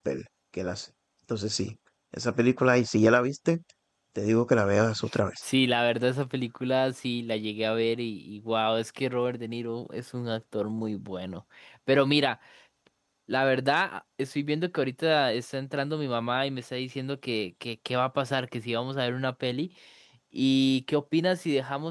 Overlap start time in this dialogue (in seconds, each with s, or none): none